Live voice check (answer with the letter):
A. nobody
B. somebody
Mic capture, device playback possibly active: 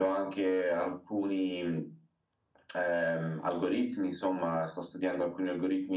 A